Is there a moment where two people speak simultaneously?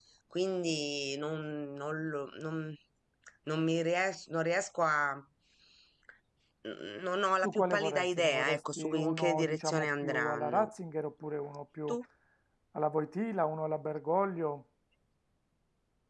Yes, from 7.4 s

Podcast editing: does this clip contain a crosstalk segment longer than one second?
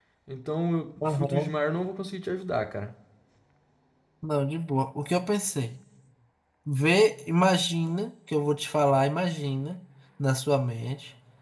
No

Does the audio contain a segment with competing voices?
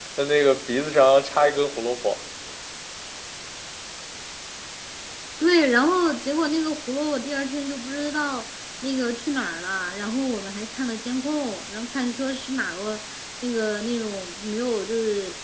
No

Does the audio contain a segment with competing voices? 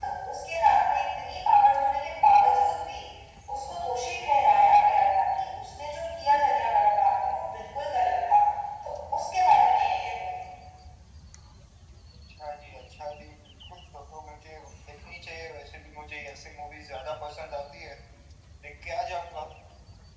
No

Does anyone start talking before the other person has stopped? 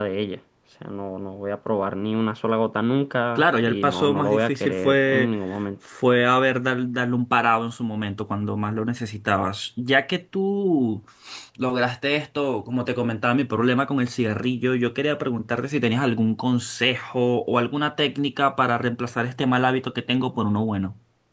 Yes, from 3.4 s

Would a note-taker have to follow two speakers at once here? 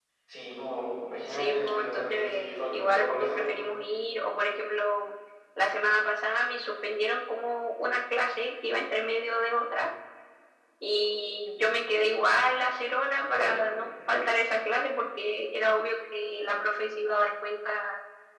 Yes, from 1.3 s

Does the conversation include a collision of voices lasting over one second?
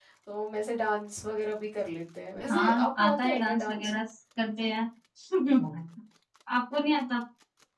Yes, from 2.5 s

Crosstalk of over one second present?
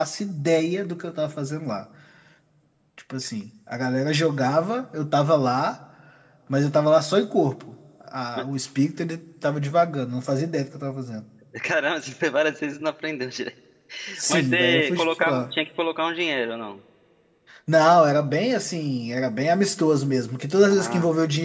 Yes, from 14.3 s

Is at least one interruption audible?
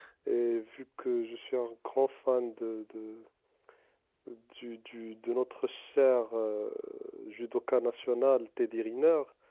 No

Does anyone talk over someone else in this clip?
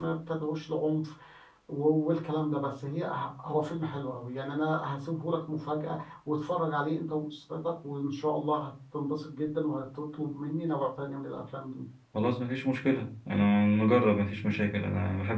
No

